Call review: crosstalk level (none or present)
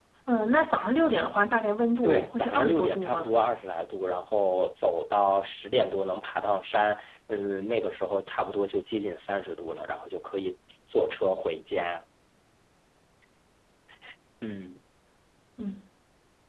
present